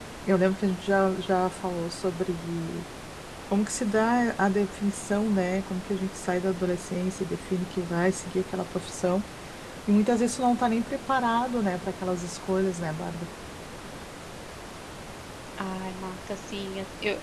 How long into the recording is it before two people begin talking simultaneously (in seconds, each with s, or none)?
none